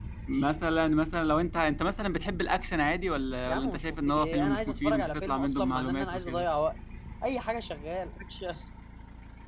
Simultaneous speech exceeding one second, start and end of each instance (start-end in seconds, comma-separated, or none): 3.5-6.5